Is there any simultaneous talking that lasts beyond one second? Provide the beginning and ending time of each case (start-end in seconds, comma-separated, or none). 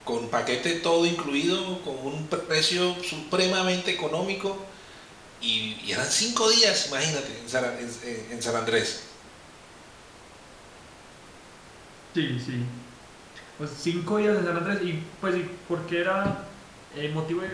none